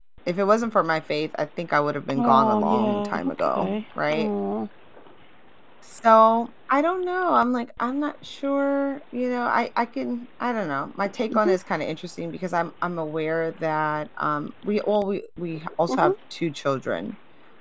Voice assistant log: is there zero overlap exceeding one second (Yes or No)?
No